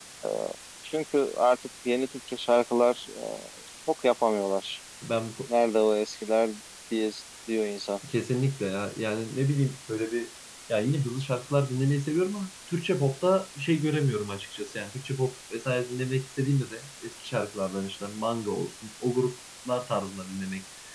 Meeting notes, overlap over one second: none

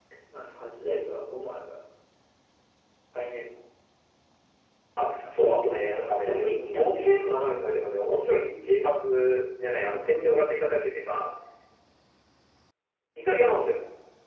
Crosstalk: present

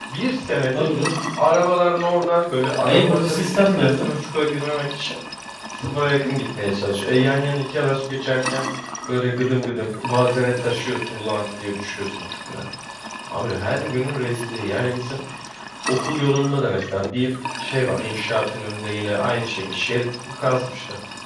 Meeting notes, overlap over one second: present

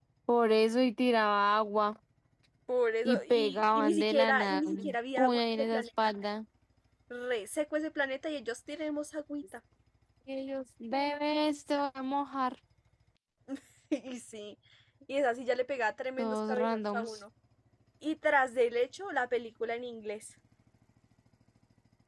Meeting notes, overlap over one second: present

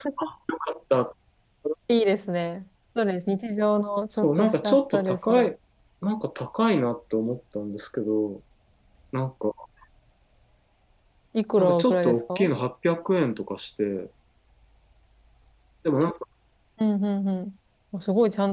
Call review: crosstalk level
present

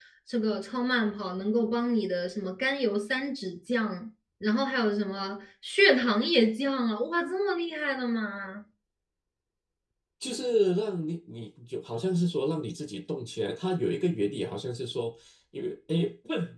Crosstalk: none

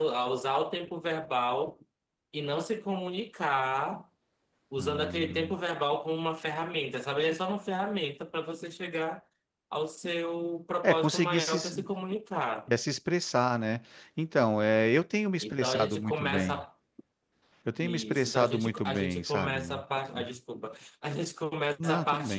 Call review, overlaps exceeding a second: present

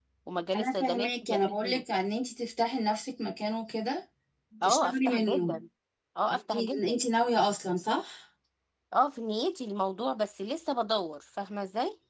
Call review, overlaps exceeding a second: present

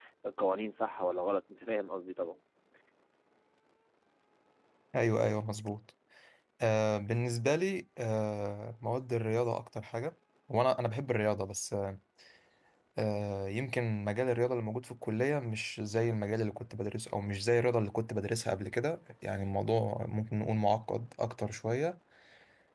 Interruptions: none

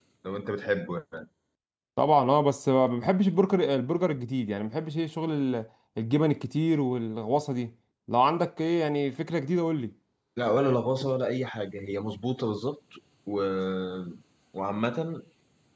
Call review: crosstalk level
none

